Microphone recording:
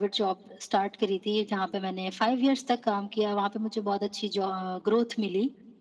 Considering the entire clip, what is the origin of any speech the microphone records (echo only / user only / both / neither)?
echo only